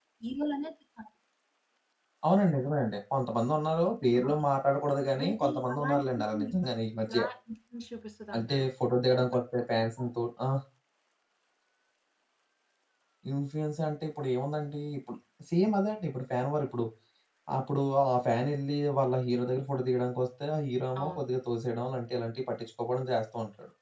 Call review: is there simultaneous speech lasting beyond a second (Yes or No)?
Yes